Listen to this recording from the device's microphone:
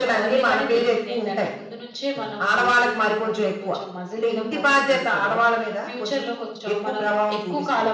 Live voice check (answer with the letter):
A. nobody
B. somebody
A